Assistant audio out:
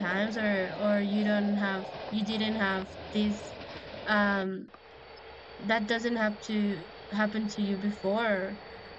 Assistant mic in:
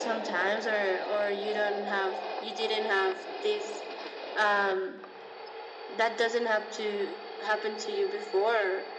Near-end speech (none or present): none